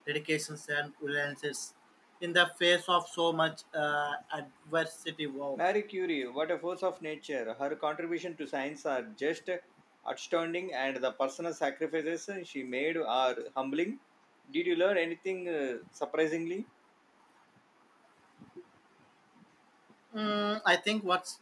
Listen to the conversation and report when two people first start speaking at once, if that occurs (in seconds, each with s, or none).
none